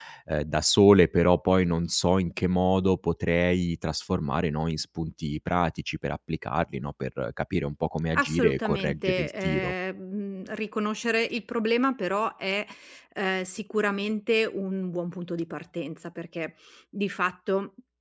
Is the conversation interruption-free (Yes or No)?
No